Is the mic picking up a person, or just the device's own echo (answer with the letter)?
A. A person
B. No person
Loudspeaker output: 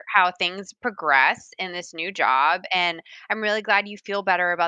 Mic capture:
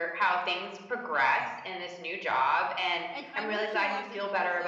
A